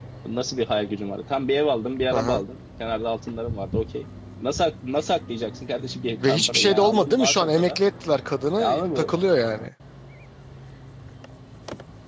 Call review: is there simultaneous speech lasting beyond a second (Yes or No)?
Yes